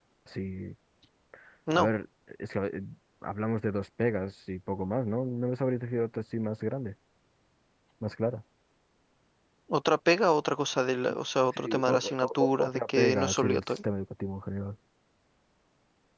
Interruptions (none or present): present